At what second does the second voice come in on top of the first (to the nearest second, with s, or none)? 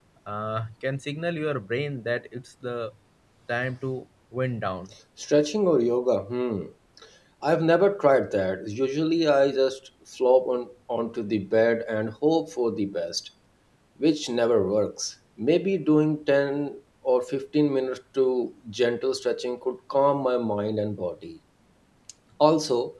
none